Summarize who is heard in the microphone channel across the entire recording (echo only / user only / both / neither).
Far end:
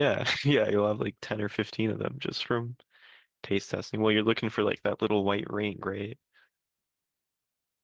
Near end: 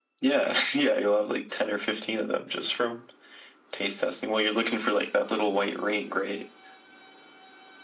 echo only